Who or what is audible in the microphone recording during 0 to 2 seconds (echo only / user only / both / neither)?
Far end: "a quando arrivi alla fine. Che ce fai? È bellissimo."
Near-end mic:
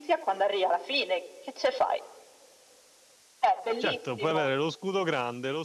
echo only